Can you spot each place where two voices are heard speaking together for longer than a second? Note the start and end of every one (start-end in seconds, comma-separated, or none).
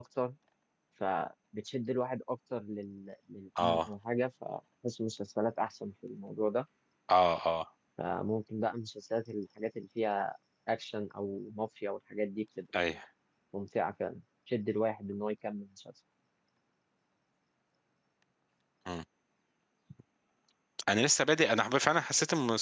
none